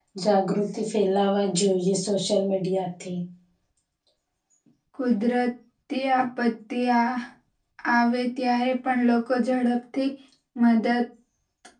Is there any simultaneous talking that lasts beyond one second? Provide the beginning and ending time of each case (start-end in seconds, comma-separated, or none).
none